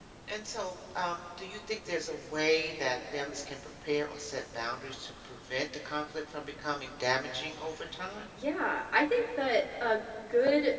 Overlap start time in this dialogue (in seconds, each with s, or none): none